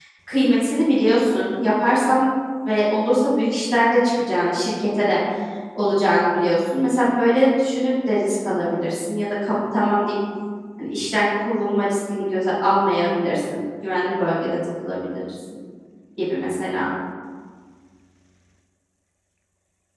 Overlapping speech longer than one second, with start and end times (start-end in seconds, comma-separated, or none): none